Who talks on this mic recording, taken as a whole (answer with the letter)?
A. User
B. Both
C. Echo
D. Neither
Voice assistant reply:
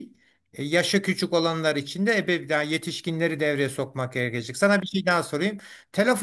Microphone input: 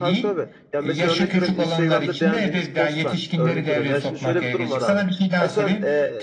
B